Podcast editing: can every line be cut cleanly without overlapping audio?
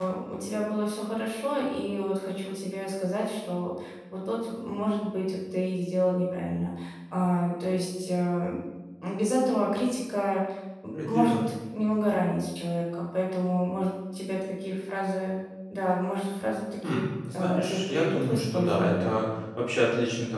No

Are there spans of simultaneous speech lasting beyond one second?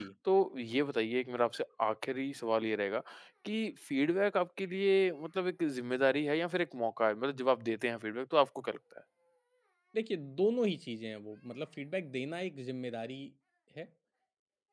No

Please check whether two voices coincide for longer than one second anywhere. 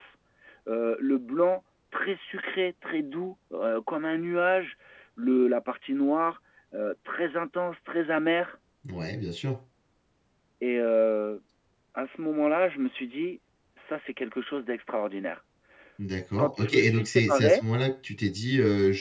Yes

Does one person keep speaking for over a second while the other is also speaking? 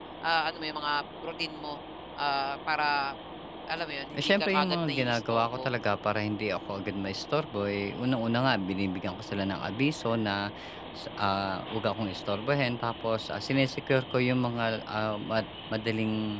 Yes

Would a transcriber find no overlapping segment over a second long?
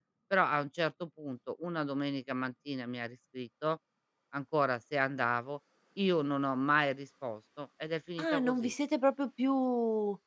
Yes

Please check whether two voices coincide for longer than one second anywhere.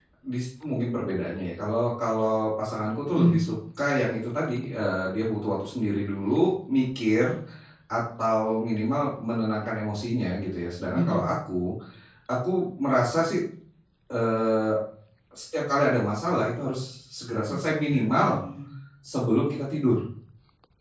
No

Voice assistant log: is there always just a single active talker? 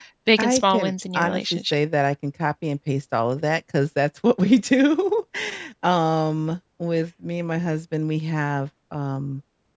No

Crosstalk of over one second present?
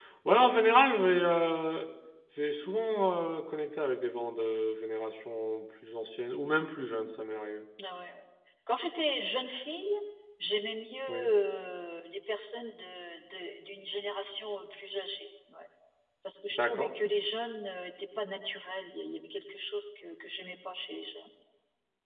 No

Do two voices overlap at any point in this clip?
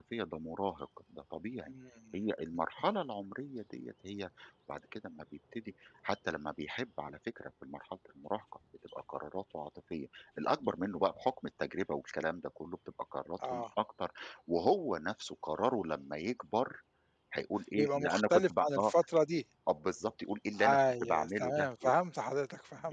Yes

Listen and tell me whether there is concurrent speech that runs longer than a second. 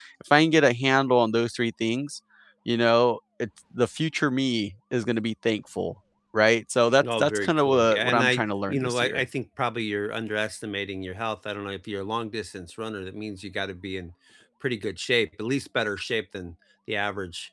Yes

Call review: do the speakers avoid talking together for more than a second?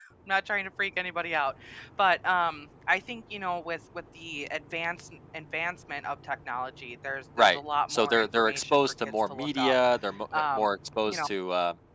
No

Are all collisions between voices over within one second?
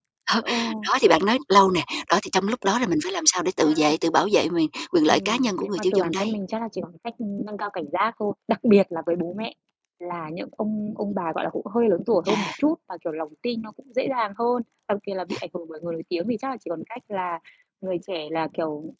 No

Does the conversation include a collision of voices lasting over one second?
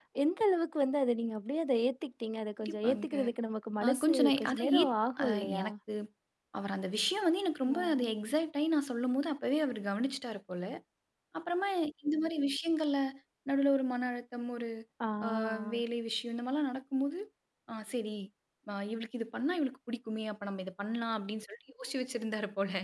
Yes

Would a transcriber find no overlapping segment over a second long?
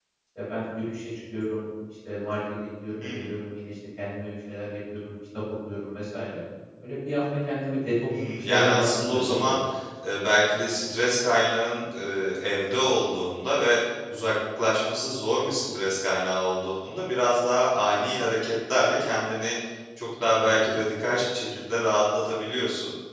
No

